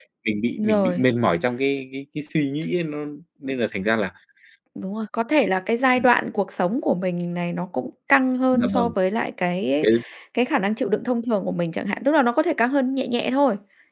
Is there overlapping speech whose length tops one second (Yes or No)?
No